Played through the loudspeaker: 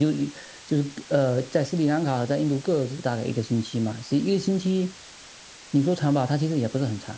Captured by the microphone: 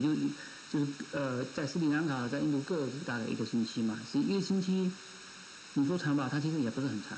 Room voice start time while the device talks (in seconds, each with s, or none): none